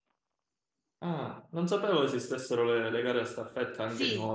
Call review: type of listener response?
taking over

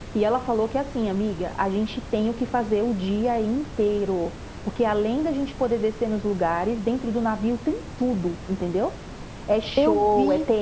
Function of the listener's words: listening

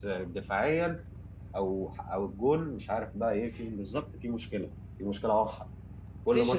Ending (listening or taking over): taking over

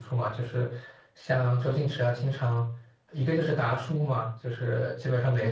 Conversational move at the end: listening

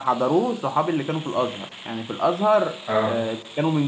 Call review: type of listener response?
listening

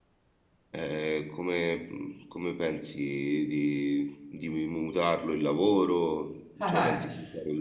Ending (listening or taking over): taking over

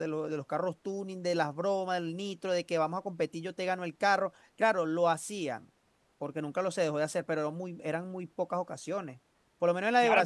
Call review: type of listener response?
taking over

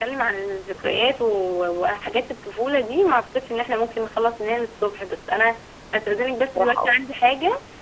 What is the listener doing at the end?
listening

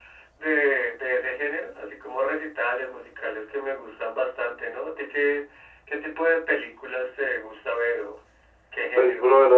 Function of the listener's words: taking over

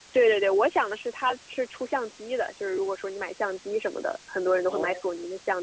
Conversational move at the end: listening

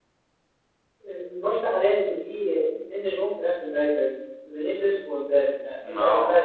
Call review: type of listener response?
listening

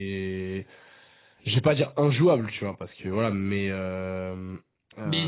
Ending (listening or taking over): taking over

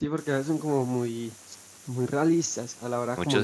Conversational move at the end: taking over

